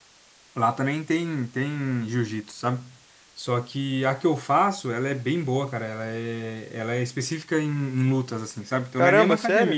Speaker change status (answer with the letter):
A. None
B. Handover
A